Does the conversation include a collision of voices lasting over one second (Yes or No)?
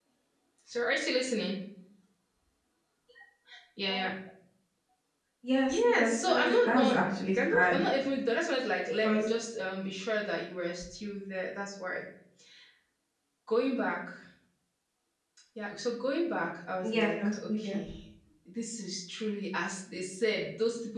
Yes